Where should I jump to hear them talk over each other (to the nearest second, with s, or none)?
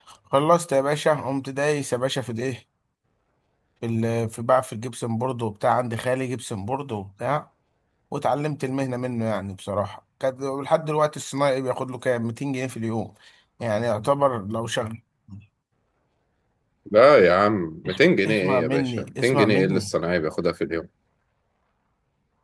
18 s